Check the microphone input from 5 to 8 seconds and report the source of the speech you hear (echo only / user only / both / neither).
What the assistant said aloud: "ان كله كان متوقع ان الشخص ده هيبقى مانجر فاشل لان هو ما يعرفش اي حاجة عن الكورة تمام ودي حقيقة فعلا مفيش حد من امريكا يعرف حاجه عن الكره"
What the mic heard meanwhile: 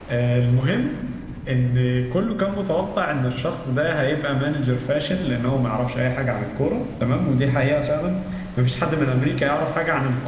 echo only